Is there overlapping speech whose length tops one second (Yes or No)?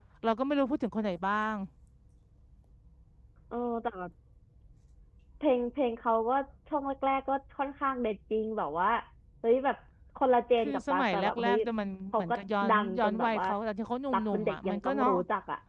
Yes